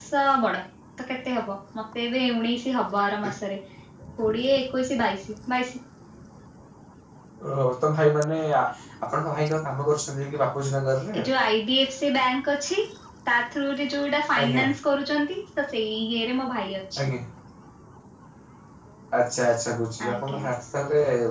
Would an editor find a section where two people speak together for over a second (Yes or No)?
No